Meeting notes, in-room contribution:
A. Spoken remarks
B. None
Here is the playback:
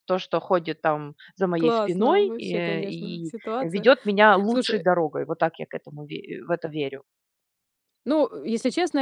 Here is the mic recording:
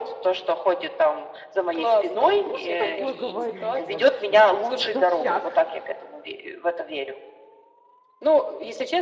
A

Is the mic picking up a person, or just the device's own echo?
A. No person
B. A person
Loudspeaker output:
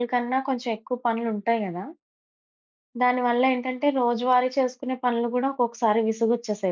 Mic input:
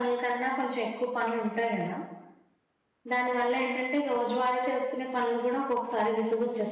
A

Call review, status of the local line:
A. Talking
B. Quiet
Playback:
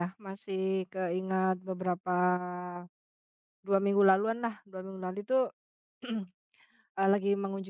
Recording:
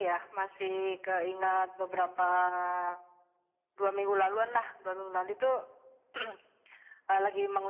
B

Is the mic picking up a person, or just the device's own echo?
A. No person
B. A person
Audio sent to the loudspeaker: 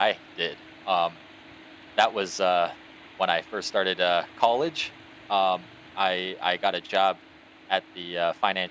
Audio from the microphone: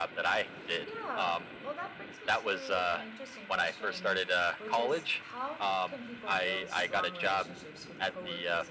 B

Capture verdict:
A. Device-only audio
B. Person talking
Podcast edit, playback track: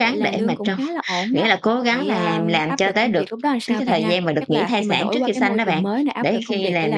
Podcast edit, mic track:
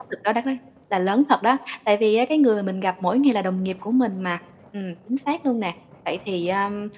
B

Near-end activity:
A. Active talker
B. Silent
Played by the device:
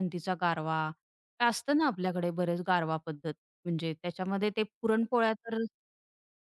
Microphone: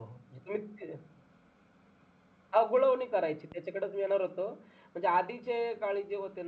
A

